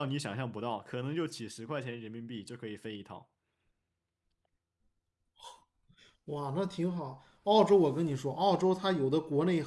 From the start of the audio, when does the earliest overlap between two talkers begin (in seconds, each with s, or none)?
none